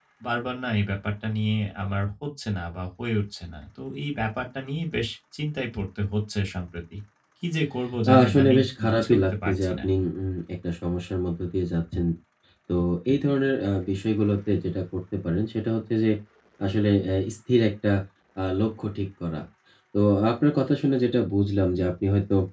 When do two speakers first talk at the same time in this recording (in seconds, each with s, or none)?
8.1 s